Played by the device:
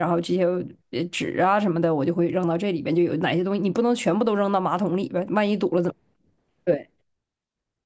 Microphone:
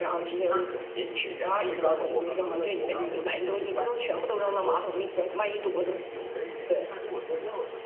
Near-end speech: present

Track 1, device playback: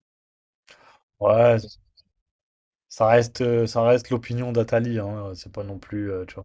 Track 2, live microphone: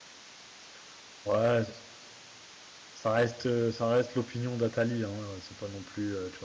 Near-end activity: none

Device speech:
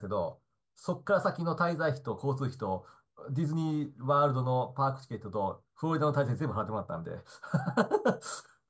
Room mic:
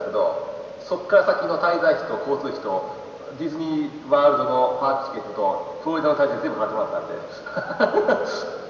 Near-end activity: none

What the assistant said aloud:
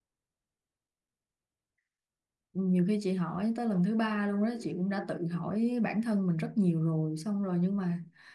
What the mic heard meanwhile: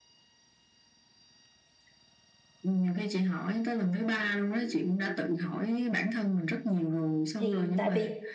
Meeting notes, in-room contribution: present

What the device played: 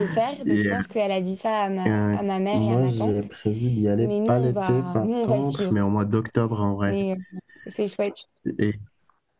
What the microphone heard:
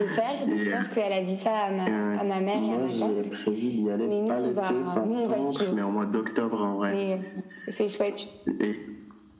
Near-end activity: none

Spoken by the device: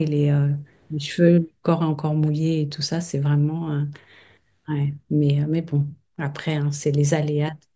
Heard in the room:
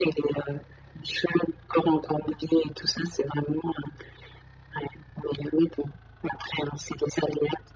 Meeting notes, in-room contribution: none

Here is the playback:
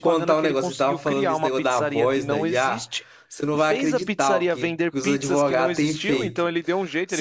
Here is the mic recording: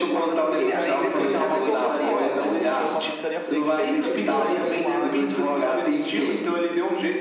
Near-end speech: present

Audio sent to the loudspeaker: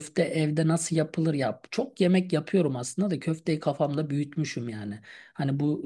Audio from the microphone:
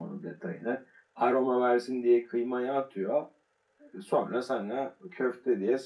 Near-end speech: present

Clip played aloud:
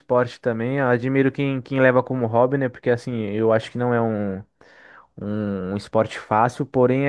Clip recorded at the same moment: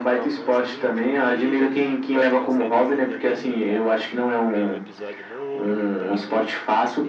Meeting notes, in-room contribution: present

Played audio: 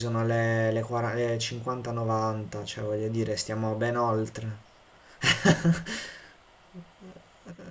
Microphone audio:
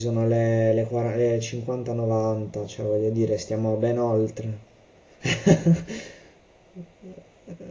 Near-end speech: none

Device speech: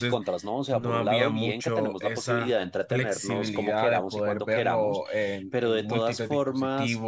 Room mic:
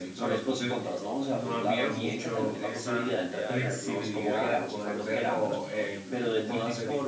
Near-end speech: present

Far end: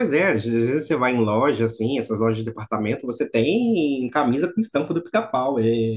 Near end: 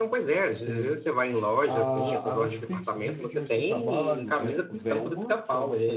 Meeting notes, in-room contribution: present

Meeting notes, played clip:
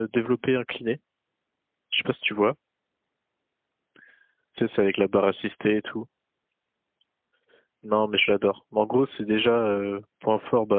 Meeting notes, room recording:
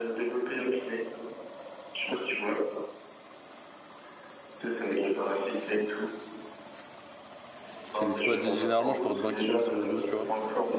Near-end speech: present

